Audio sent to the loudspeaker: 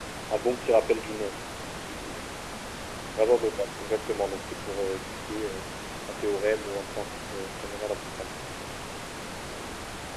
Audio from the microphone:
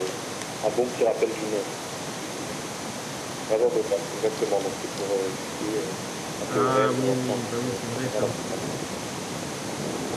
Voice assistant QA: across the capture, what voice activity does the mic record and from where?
both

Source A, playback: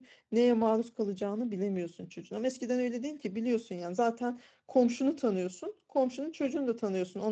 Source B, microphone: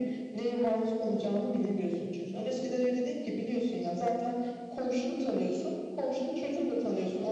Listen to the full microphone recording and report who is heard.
echo only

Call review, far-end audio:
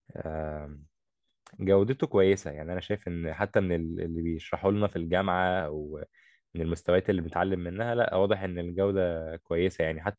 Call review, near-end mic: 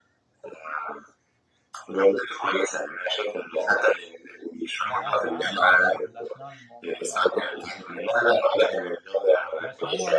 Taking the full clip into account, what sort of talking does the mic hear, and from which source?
both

